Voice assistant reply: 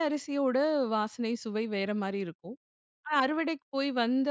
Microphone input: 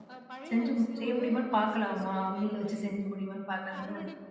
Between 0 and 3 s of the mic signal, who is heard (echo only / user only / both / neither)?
both